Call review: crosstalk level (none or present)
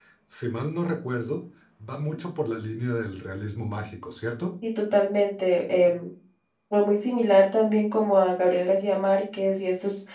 none